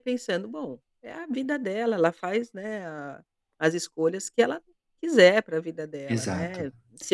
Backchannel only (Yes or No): Yes